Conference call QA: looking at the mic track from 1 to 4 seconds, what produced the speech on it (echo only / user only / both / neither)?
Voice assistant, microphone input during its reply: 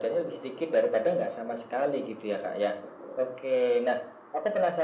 echo only